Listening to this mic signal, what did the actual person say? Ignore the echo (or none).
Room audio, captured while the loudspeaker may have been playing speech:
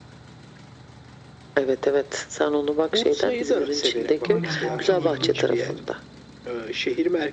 Aynen Balçova'daydı o olay.